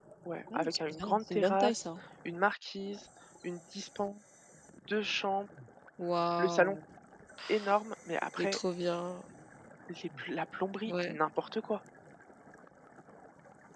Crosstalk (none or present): present